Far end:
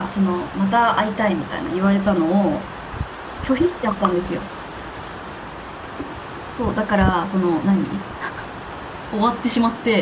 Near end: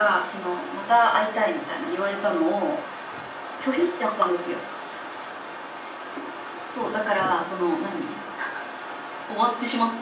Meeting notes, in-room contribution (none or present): none